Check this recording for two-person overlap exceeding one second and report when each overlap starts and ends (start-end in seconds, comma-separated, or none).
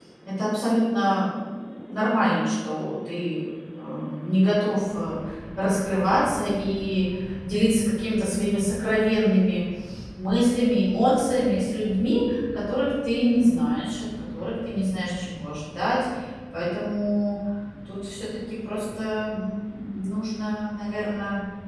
none